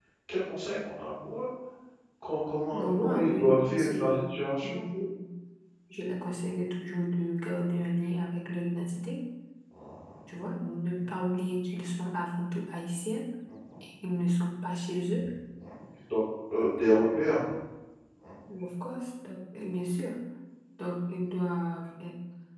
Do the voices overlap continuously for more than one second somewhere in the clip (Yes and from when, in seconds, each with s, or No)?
Yes, from 2.7 s